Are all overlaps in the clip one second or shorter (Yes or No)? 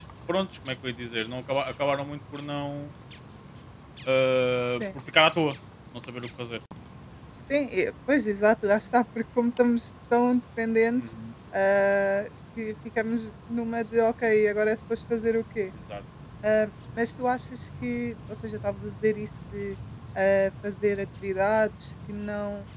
Yes